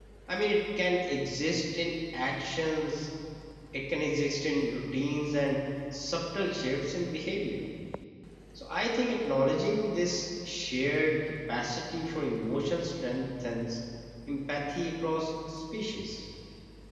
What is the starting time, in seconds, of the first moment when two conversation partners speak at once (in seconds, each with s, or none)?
none